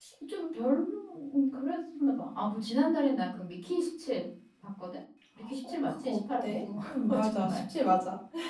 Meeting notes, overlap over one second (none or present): present